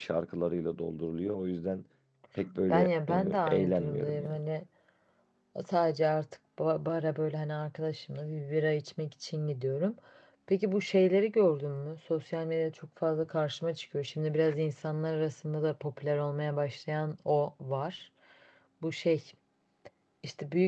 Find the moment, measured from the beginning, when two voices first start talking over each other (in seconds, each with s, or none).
2.7 s